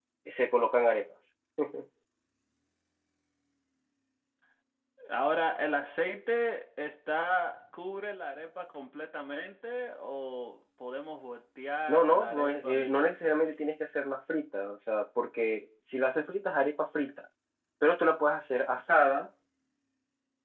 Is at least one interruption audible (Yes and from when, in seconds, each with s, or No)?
Yes, from 11.9 s